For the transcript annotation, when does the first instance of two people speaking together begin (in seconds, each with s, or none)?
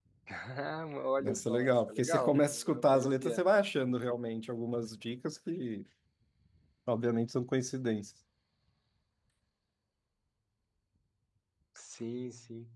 1.2 s